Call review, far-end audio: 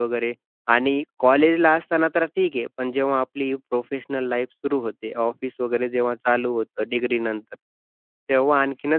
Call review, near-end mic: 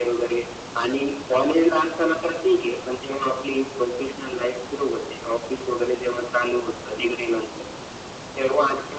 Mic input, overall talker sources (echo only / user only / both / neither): echo only